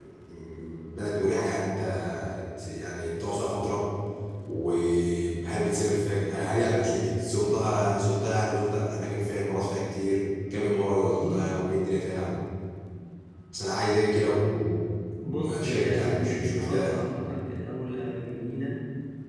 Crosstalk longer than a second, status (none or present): present